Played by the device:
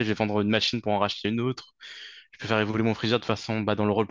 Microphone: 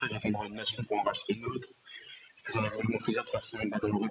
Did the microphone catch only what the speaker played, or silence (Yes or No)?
Yes